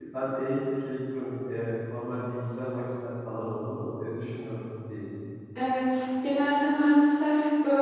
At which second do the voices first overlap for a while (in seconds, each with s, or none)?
none